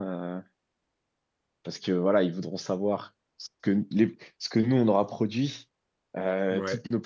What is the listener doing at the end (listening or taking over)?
listening